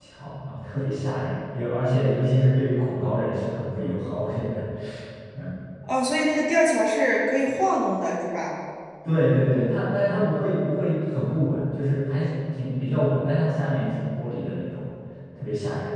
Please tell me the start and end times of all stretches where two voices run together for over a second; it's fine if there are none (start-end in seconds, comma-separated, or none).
none